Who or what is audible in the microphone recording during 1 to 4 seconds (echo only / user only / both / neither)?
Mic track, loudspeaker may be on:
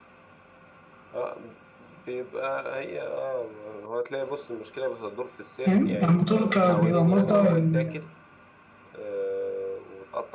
echo only